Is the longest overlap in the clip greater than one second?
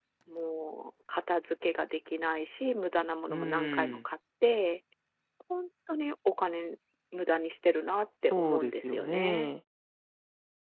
Yes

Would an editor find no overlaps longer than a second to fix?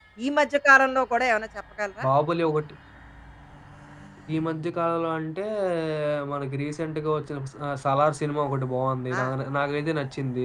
Yes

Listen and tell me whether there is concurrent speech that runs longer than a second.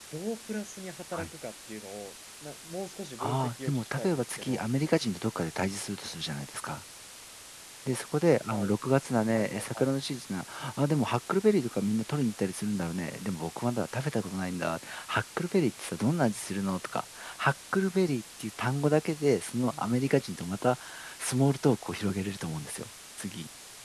Yes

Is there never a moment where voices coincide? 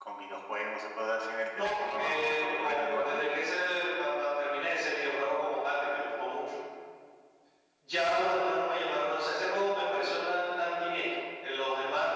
No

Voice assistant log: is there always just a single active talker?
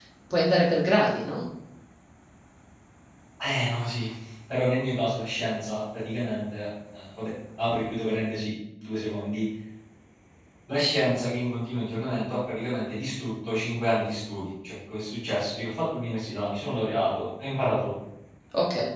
Yes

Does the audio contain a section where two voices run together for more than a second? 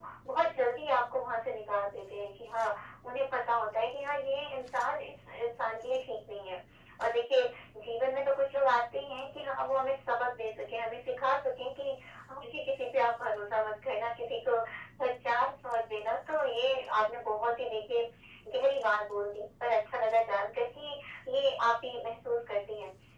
No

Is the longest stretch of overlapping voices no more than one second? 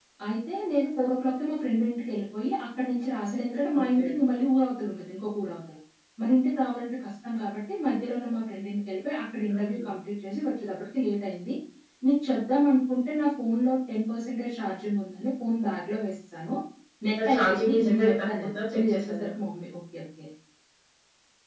No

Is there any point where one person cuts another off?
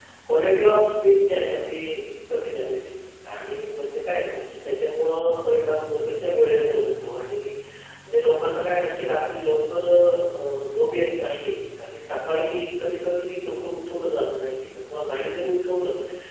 No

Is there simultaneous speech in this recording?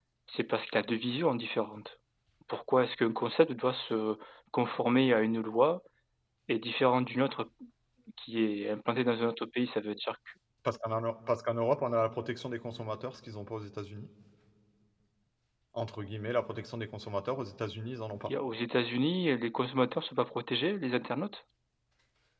No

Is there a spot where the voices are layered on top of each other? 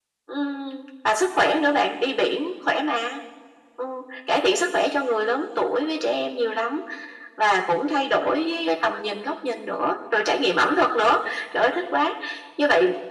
No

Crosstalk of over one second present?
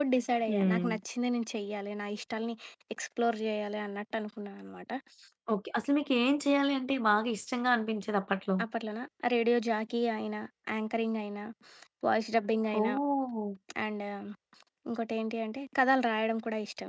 No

